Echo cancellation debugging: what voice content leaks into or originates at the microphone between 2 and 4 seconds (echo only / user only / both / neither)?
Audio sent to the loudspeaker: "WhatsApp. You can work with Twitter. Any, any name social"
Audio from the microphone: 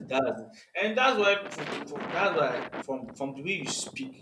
user only